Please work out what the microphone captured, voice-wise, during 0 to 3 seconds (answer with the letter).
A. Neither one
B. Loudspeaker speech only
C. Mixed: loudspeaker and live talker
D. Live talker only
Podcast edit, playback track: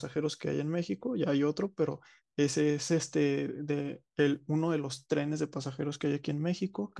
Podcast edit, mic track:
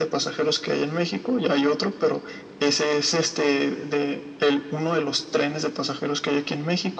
B